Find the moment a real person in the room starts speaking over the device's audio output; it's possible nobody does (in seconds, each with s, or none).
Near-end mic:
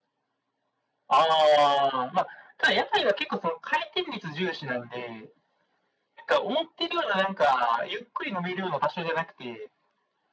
none